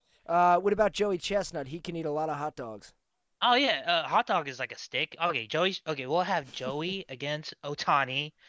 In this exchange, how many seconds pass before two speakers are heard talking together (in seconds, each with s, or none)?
none